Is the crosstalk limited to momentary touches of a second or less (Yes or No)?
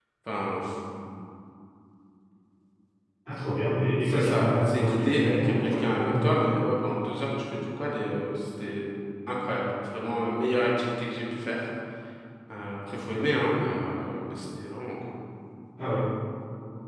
No